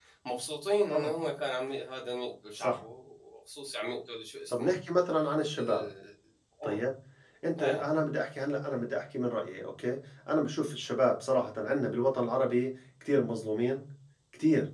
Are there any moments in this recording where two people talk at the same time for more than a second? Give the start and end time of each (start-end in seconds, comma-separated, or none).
none